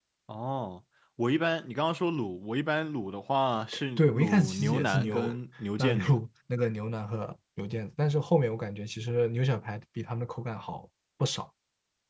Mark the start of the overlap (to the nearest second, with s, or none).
4 s